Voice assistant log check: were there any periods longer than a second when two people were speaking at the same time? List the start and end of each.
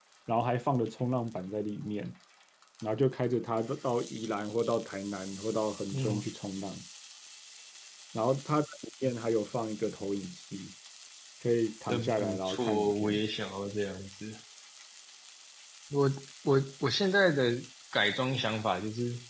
11.9-13.2

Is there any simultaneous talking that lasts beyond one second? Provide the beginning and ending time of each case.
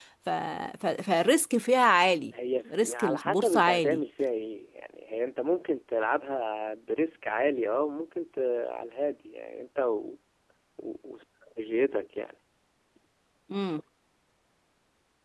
2.8-4.0

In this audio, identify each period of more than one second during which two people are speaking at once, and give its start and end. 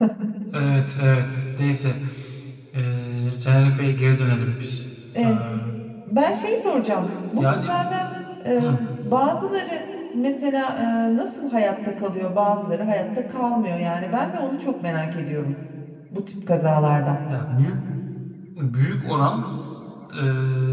none

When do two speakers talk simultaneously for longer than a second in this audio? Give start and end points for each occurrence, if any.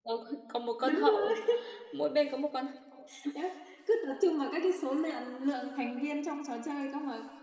none

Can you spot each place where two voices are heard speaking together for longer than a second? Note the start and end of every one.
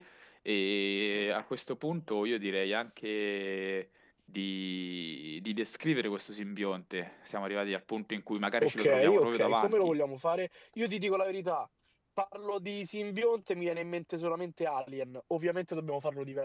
8.6-9.9

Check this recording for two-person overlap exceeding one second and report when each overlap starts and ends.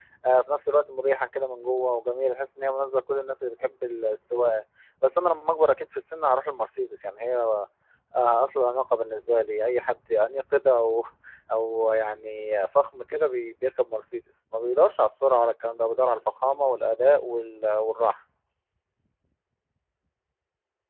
none

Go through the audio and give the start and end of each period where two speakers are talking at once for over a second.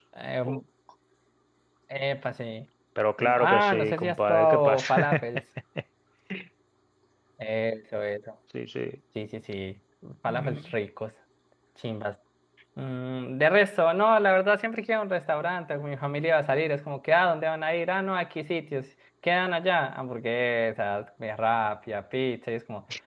3.2-4.9

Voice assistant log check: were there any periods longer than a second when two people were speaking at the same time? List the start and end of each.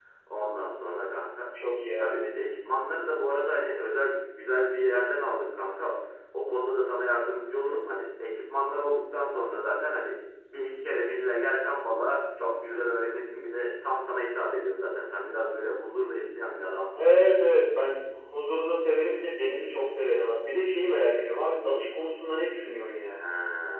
none

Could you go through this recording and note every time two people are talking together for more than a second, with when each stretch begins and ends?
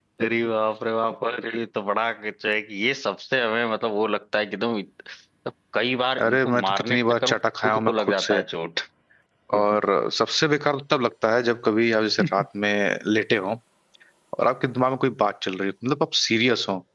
6.3-8.4

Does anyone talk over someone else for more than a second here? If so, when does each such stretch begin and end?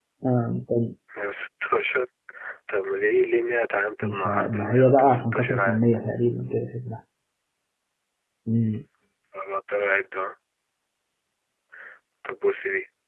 4.0-5.8

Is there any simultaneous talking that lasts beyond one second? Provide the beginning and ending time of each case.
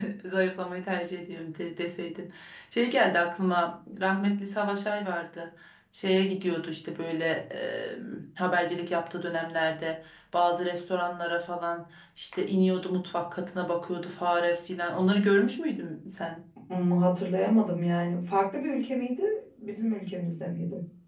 none

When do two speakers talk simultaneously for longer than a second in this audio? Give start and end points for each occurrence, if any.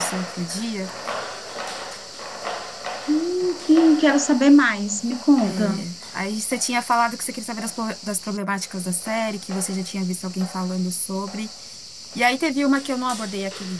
none

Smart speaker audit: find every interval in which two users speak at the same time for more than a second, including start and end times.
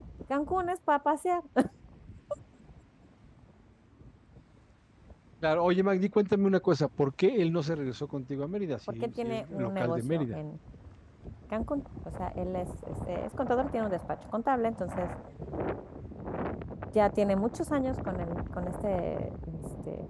9.0-10.4

